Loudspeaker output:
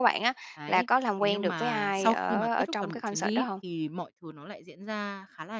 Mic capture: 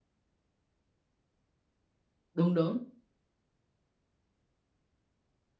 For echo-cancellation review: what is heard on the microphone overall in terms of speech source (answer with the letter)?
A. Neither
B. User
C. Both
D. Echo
B